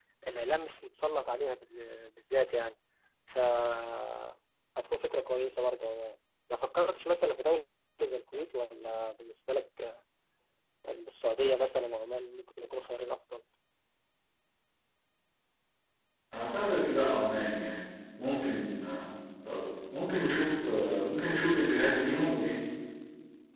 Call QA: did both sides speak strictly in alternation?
Yes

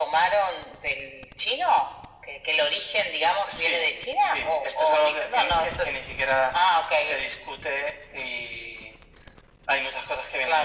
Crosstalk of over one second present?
Yes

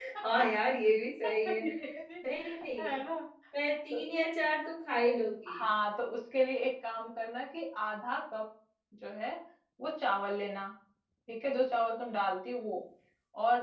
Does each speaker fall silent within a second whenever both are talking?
Yes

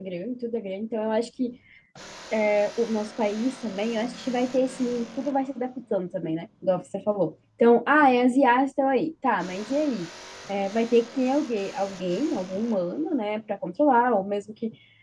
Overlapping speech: No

